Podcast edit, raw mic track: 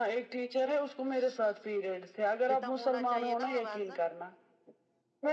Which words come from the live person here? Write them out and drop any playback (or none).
جتنا ہونا چاہیے نا آوازن